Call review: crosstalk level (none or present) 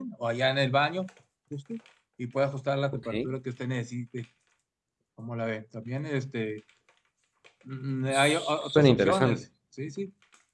present